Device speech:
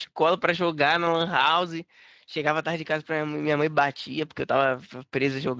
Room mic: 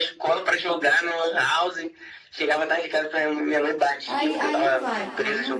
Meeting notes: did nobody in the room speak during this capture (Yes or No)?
No